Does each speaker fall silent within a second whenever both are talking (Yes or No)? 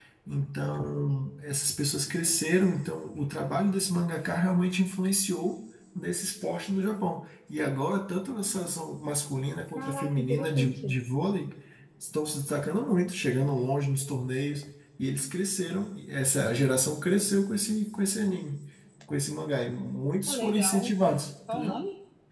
No